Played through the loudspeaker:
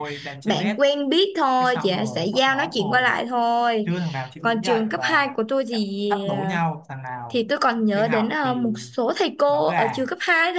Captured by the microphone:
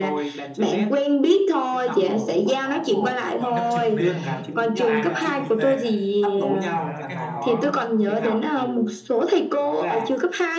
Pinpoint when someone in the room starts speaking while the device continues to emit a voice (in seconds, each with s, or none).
3.4 s